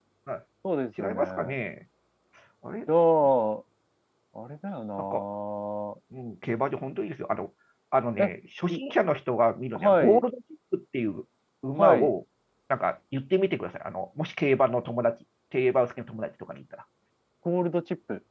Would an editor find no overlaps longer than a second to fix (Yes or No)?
Yes